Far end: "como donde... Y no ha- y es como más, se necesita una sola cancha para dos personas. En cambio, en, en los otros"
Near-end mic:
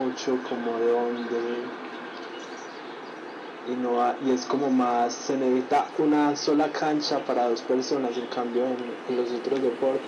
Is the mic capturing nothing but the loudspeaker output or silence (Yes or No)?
Yes